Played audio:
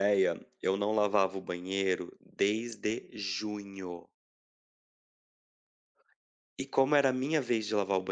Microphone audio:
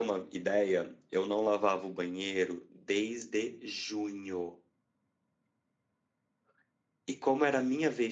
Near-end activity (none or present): none